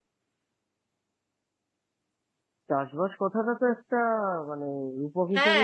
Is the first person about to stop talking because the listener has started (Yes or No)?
Yes